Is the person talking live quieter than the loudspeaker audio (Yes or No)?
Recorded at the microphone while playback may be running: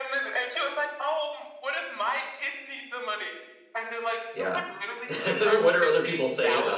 No